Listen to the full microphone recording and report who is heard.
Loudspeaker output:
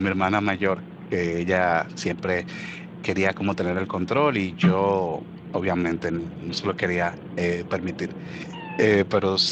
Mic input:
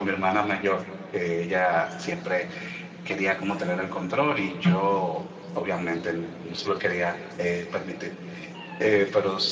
echo only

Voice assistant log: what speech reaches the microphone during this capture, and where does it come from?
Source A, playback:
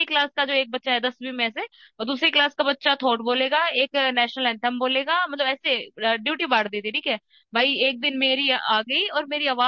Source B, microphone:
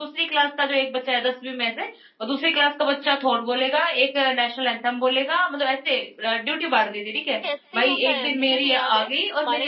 both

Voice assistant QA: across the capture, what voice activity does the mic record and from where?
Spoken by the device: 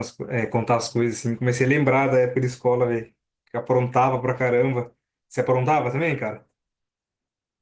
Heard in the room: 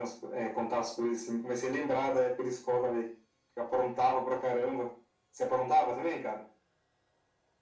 echo only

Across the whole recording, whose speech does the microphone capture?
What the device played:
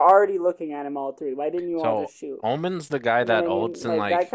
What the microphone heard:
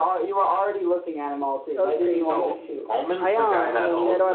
both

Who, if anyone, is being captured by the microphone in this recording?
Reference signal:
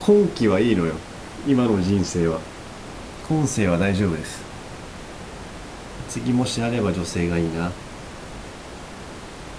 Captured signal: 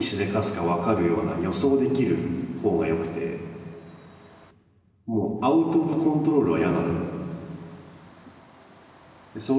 user only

